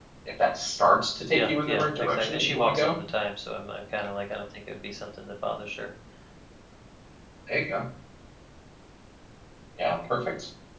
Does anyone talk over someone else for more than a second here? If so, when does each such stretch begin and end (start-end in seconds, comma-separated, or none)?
1.3-3.0